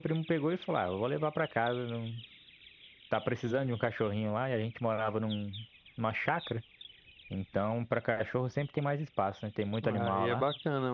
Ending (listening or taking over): taking over